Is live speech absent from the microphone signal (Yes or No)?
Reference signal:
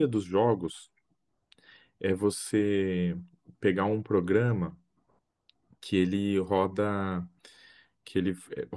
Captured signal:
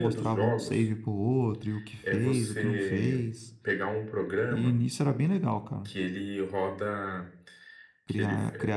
No